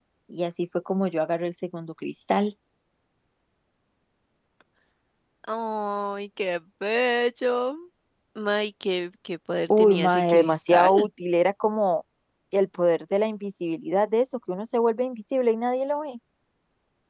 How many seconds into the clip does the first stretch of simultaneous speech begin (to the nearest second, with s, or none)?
10 s